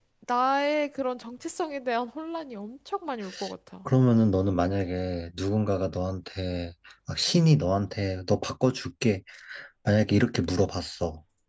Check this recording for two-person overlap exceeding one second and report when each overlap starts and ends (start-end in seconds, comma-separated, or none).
none